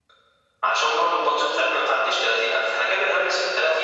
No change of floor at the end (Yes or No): No